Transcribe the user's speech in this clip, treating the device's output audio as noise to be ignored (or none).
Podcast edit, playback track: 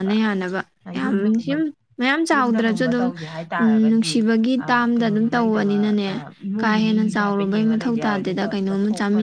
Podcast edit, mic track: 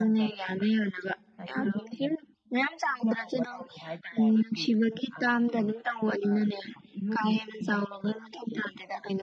none